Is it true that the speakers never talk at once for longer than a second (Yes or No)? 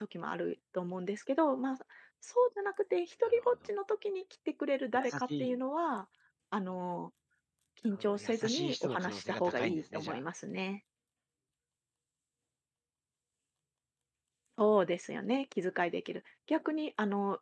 No